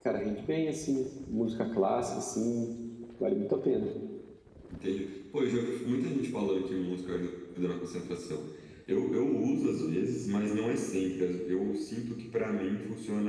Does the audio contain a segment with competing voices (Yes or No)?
No